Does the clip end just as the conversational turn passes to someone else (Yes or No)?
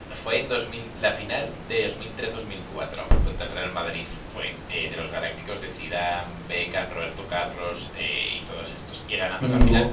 No